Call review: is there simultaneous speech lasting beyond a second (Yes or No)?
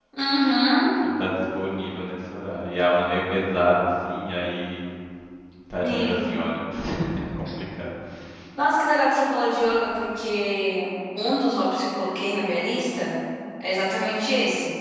No